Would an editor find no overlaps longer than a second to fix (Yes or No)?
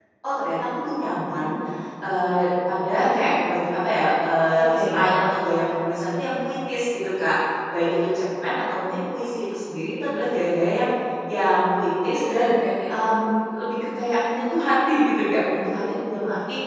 Yes